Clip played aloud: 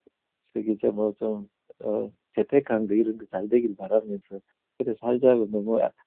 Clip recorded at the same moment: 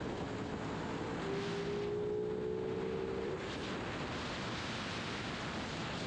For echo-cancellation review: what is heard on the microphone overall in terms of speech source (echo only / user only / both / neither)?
neither